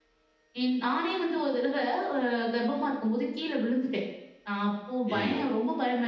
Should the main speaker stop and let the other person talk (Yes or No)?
No